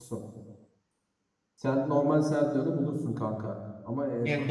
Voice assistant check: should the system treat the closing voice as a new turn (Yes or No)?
Yes